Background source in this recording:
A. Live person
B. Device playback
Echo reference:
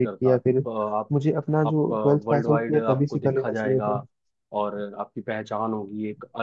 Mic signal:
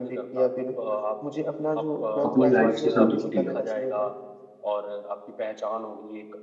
B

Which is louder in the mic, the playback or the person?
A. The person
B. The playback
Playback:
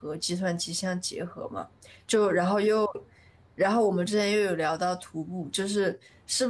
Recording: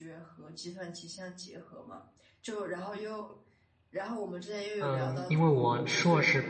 A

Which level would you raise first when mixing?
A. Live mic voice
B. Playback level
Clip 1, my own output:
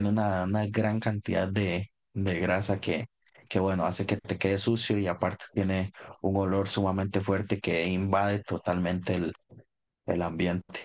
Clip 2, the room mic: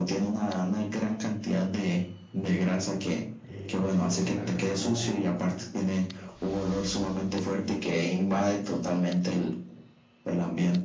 A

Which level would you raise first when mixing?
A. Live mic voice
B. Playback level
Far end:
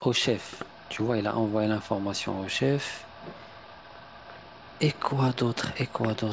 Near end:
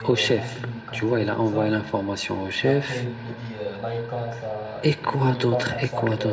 A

